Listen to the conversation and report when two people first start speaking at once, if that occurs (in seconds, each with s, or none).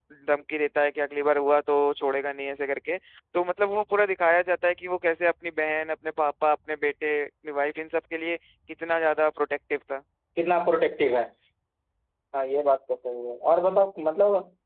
none